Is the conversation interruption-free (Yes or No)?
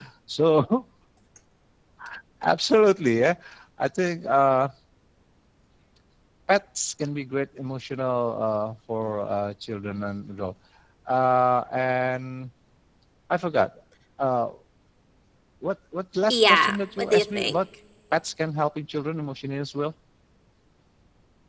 No